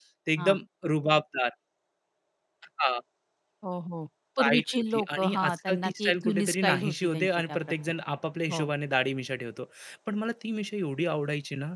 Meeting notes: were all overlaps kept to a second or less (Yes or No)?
No